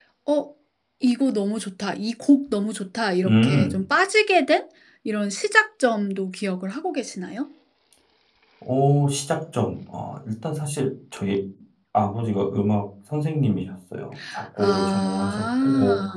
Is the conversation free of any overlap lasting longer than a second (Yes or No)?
No